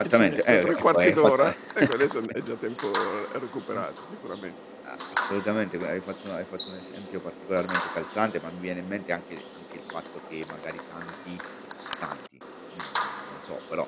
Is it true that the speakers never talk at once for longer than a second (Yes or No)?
No